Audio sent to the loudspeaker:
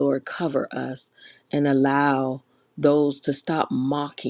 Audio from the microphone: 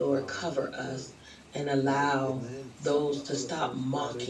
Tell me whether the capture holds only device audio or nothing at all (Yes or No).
No